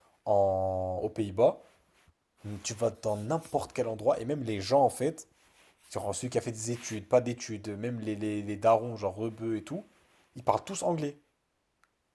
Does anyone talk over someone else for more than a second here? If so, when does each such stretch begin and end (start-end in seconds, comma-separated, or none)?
none